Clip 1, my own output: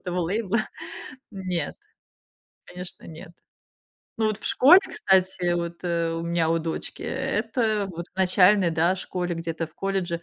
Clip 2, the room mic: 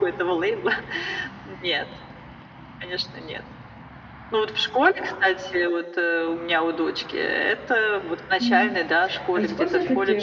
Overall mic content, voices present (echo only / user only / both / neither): both